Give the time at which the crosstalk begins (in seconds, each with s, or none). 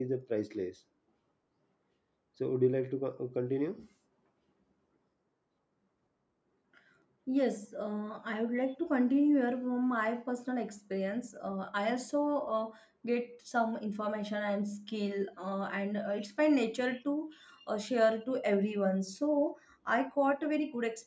none